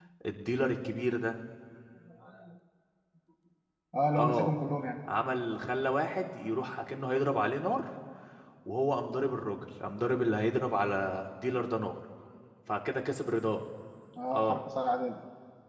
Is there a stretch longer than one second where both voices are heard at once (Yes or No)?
No